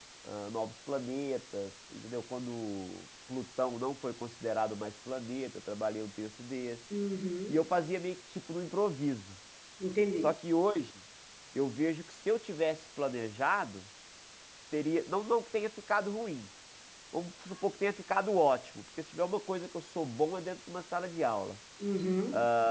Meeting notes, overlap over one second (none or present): none